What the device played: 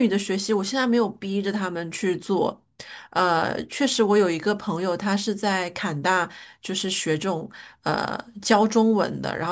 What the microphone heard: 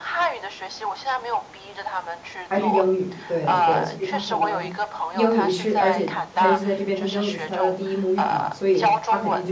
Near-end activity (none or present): present